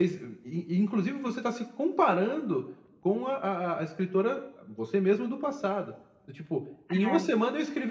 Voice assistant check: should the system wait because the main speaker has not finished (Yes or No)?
Yes